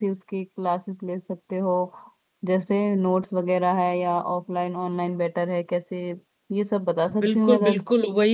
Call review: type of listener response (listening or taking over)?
taking over